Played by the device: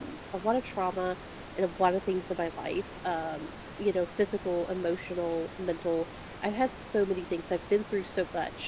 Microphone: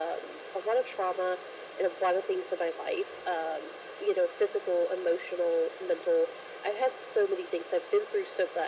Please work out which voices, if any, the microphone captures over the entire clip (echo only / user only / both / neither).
echo only